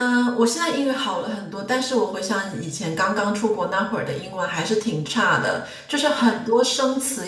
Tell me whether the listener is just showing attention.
Yes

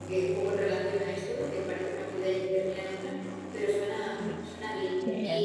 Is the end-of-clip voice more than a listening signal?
Yes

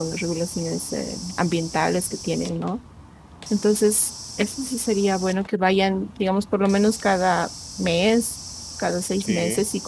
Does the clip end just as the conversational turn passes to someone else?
No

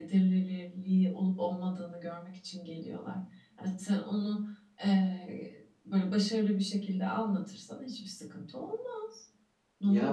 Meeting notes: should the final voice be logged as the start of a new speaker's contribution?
Yes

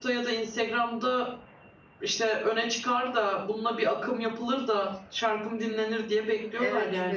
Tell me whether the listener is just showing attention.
No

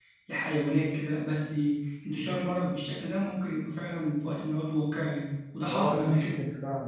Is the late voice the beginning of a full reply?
Yes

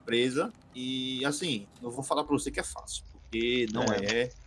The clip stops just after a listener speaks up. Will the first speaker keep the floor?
Yes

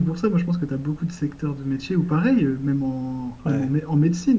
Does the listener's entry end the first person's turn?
No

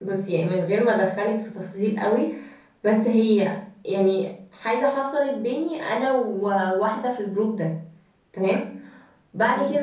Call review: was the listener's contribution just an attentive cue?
Yes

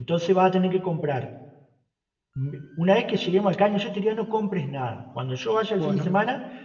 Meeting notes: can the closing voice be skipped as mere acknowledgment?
Yes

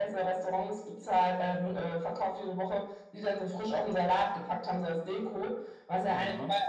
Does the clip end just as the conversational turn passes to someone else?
No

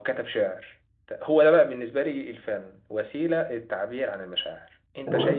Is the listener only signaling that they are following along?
Yes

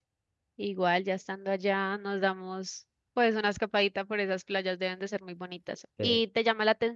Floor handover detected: No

